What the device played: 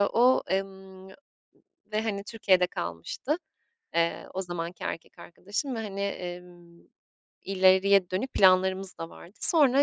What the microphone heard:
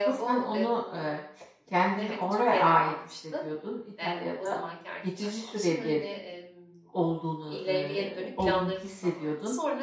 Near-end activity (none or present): present